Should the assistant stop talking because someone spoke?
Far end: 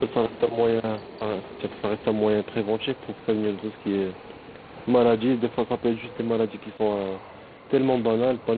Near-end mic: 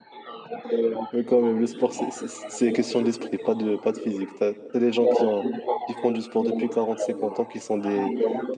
Yes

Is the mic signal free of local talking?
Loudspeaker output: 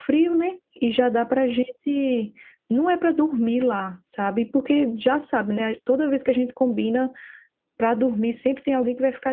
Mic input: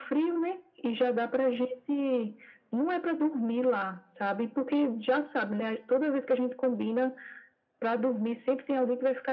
Yes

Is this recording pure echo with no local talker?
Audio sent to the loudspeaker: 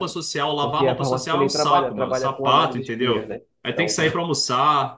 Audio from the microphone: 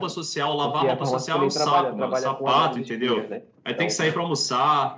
Yes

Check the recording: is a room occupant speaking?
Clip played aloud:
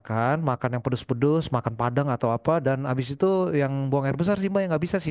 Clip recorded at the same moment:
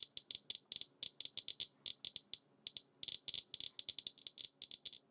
No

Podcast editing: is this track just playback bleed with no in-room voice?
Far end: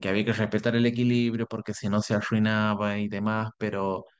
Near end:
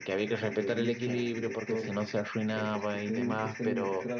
No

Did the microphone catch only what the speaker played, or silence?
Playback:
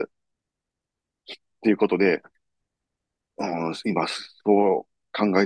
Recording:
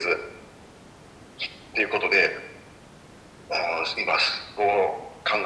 Yes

